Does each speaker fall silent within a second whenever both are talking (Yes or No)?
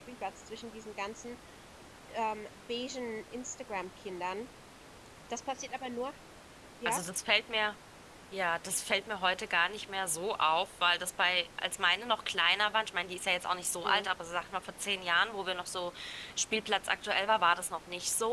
Yes